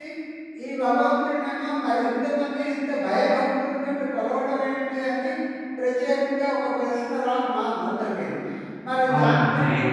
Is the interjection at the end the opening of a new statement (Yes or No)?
Yes